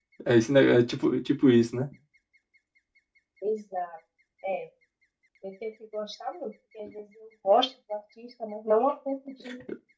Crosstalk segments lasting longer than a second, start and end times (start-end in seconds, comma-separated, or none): none